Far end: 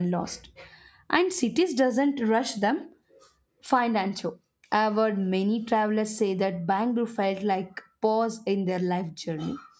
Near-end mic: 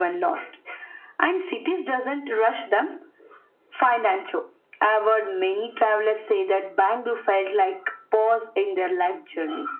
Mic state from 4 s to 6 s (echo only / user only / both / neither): echo only